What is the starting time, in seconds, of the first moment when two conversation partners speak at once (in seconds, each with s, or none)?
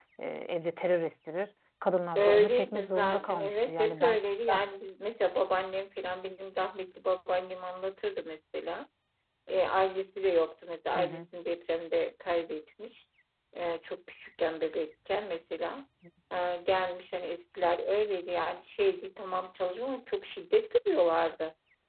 2.2 s